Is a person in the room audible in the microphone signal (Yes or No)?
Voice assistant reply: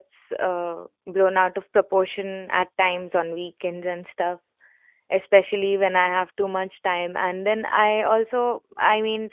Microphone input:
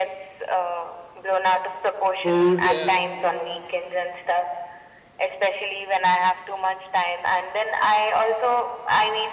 Yes